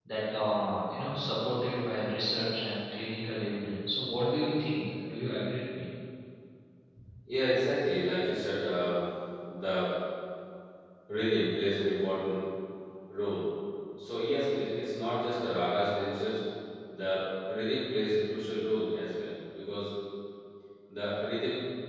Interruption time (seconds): none

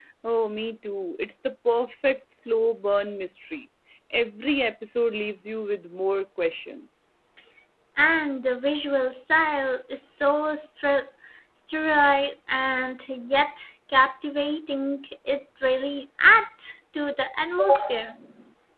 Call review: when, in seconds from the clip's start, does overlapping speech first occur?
none

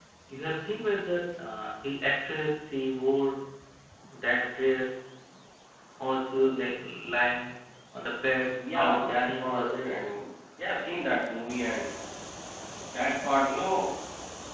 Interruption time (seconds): 8.6 s

